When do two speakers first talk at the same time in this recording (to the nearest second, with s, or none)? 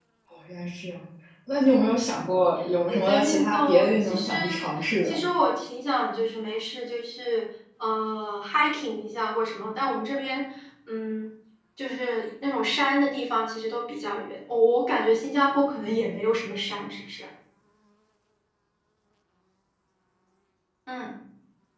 3 s